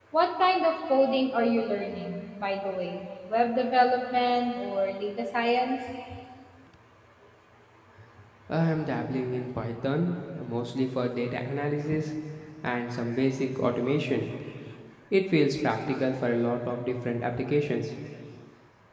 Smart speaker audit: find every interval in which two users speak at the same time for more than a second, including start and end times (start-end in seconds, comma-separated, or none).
none